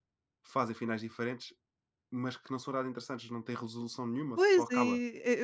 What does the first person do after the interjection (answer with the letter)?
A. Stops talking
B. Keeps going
A